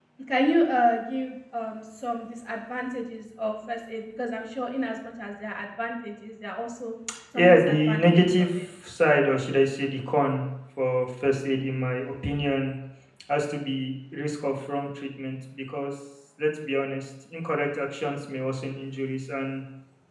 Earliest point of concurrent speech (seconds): 7.3 s

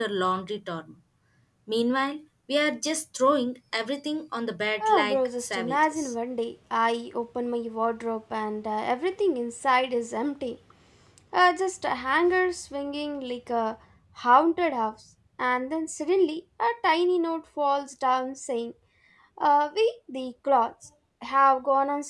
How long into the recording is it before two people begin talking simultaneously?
4.8 s

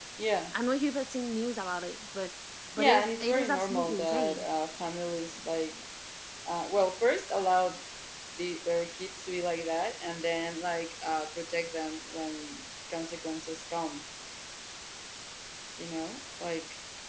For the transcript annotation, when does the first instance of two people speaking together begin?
2.8 s

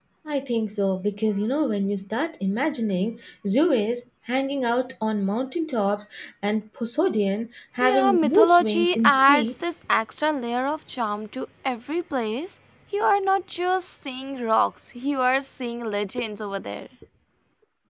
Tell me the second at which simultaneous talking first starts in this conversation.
7.8 s

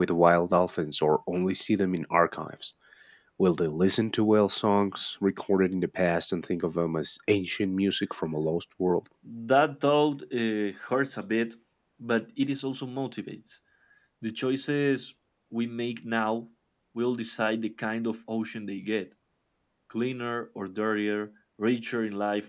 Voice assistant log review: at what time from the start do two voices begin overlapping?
none

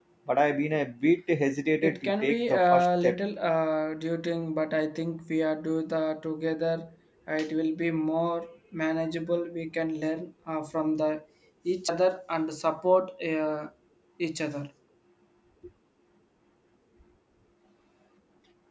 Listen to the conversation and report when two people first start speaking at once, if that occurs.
1.8 s

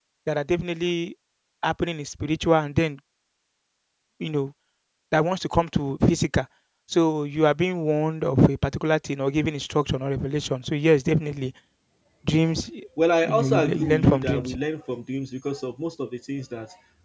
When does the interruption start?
13.3 s

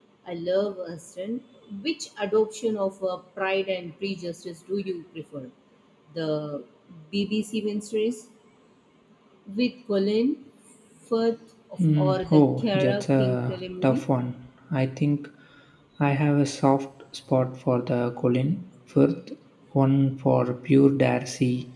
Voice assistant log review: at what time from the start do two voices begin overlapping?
11.8 s

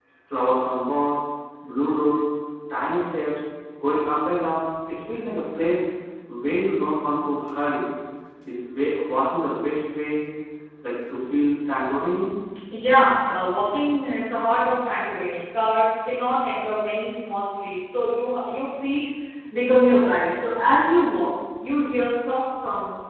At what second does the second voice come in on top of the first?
none

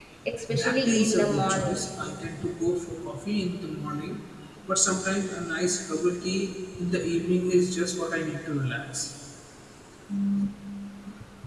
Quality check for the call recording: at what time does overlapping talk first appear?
0.5 s

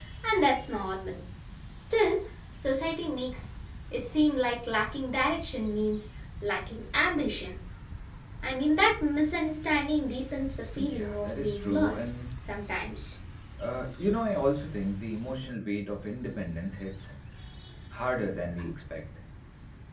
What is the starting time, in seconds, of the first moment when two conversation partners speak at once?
10.8 s

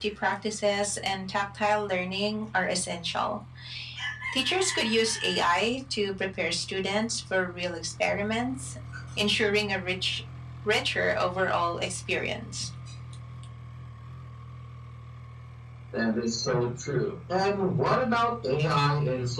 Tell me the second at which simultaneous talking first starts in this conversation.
none

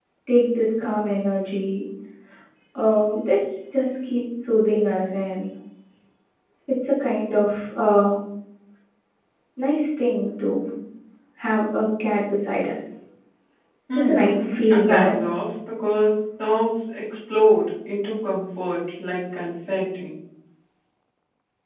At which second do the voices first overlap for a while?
13.9 s

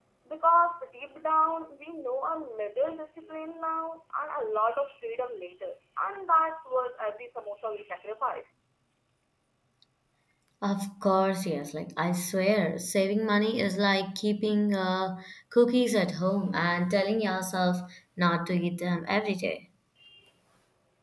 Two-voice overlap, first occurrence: none

